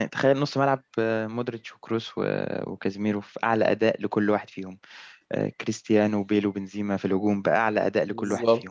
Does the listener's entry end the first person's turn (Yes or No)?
Yes